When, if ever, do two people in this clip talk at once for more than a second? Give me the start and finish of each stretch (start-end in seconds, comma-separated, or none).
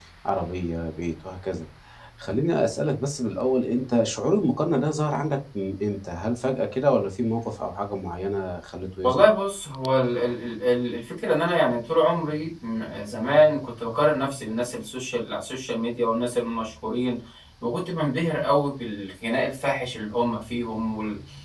none